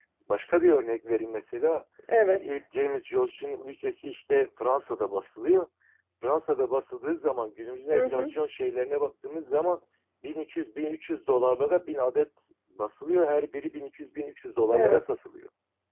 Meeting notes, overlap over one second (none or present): none